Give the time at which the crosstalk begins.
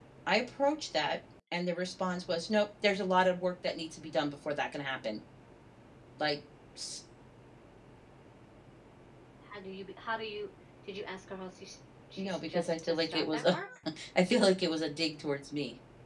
12.2 s

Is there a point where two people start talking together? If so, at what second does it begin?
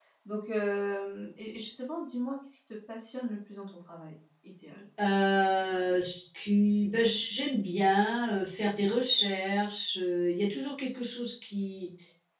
none

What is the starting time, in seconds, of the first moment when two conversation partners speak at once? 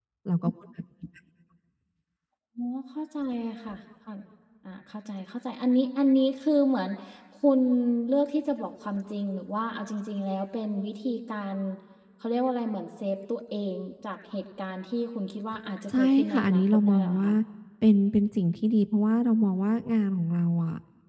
15.9 s

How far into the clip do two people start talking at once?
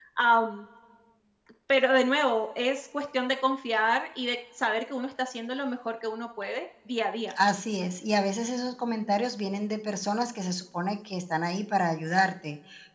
none

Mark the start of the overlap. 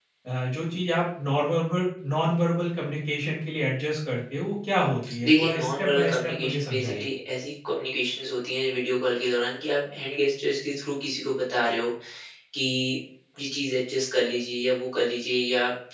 5.0 s

